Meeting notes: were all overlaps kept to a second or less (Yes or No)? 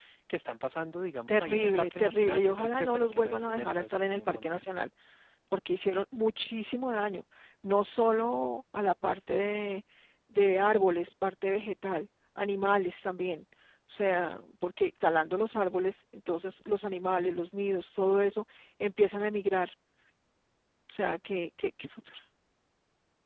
No